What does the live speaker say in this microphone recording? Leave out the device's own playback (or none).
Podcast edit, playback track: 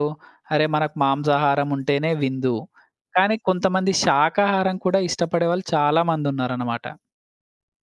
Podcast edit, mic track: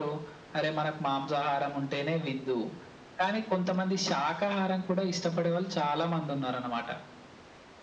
none